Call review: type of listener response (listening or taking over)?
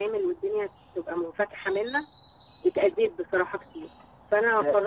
taking over